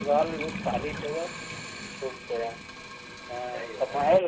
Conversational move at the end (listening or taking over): listening